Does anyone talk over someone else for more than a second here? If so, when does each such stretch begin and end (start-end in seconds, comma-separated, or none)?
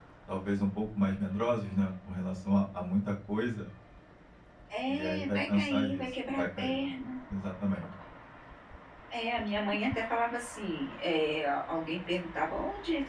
4.9-6.9